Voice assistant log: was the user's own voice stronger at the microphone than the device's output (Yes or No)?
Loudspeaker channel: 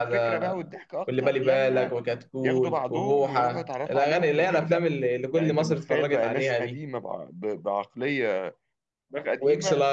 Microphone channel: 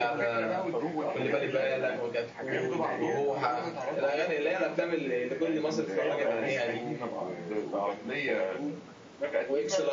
No